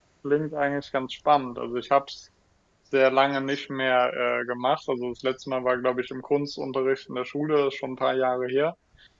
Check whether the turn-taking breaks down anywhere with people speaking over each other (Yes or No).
No